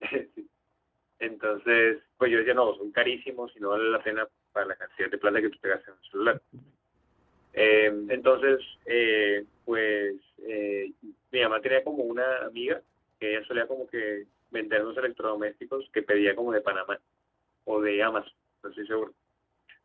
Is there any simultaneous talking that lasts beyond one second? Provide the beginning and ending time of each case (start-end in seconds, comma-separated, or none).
none